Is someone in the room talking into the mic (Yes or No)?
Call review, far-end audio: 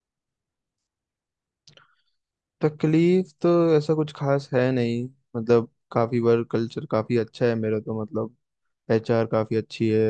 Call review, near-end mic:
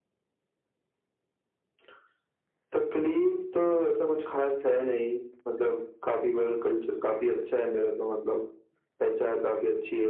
No